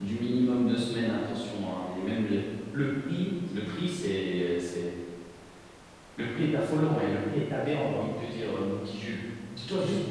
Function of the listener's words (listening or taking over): listening